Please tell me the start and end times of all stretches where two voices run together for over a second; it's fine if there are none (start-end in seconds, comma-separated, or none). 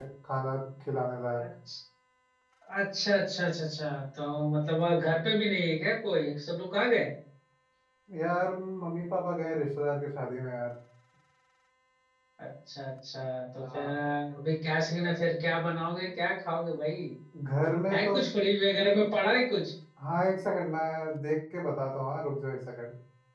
none